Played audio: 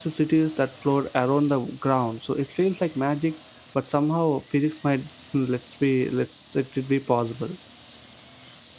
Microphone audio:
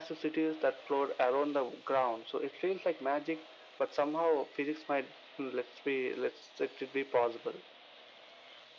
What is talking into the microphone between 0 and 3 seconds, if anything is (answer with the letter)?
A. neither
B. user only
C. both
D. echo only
D